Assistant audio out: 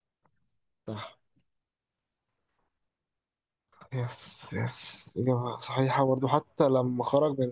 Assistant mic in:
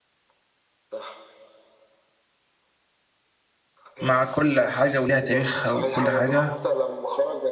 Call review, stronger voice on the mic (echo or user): user